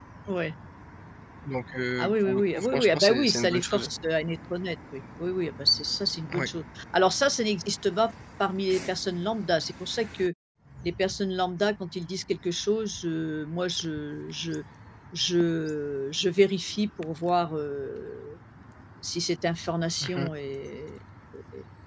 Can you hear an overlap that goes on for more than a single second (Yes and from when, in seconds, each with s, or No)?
Yes, from 2.0 s